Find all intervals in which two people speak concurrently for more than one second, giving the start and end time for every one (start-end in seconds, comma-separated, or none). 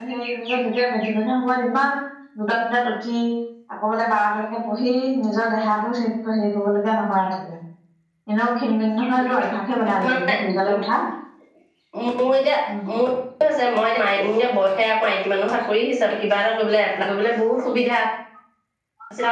none